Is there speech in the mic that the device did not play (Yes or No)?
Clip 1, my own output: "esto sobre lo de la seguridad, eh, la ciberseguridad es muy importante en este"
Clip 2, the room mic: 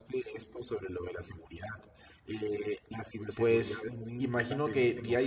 Yes